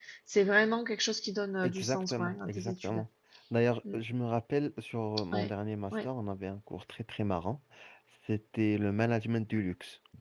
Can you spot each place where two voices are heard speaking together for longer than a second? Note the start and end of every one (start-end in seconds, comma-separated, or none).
1.6-3.0